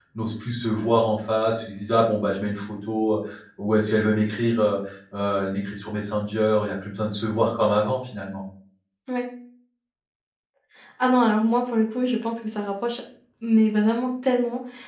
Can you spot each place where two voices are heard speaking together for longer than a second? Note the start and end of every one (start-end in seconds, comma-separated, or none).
none